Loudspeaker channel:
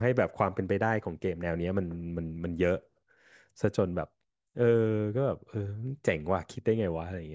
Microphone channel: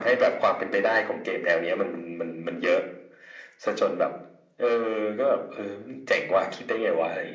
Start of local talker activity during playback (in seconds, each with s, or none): none